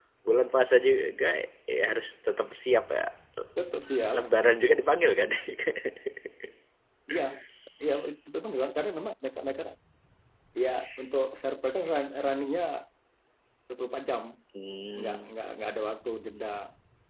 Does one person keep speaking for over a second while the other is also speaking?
No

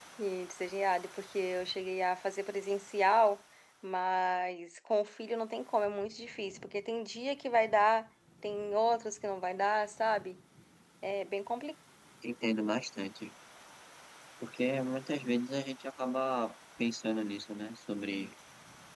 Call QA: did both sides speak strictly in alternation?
Yes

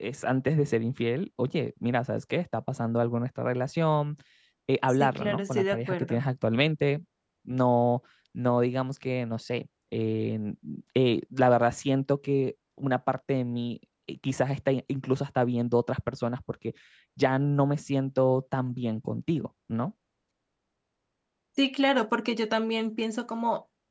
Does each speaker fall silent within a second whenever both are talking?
No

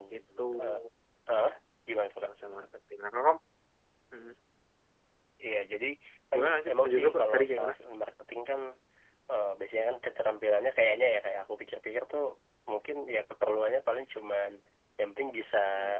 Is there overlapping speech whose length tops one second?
Yes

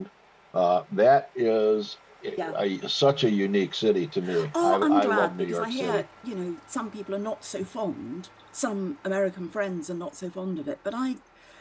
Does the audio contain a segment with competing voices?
Yes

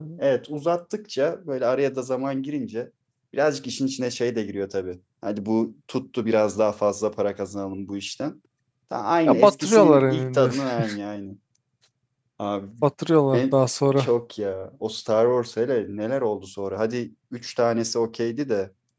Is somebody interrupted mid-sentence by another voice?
Yes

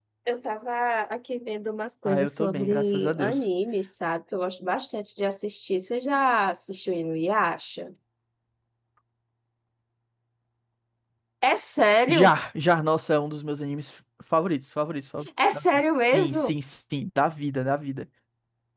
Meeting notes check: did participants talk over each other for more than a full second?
Yes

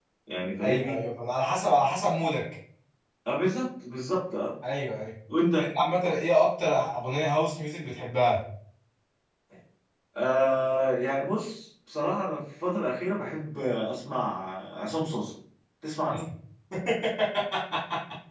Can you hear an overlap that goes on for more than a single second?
No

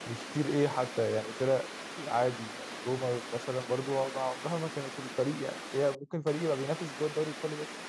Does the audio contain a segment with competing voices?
No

